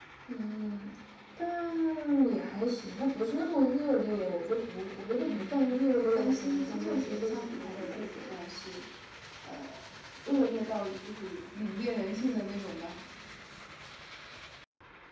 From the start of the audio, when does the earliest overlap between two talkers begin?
5.2 s

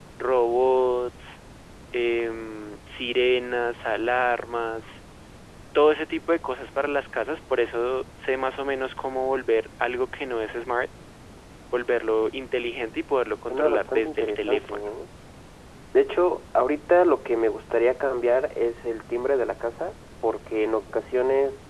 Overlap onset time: 13.5 s

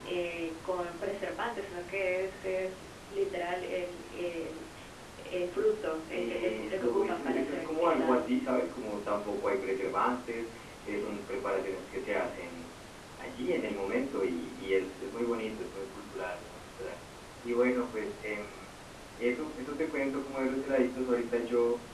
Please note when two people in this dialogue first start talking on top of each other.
6.1 s

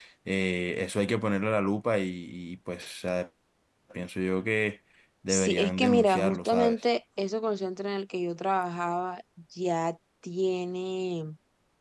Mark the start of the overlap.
5.3 s

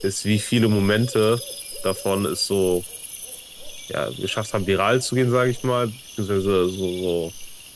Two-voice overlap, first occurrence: none

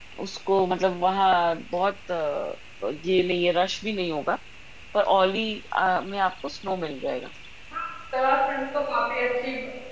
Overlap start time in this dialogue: none

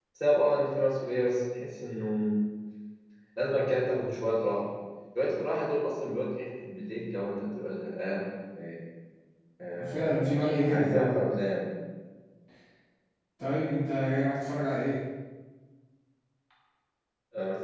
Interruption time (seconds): 9.9 s

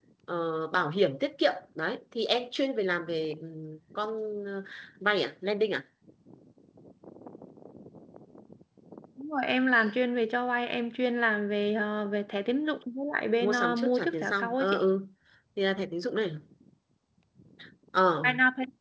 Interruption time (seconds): 13.4 s

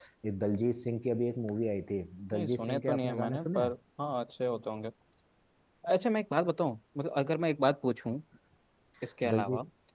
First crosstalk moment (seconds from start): 2.3 s

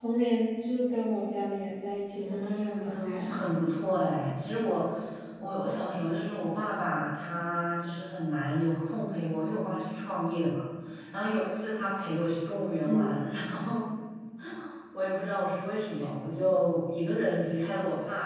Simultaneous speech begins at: 2.1 s

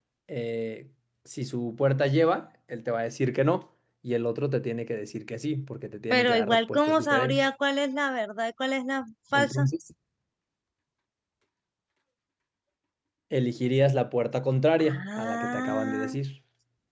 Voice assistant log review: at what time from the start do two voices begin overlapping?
6.1 s

